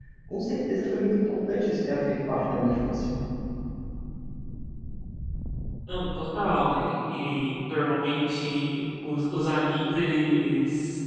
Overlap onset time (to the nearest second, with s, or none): none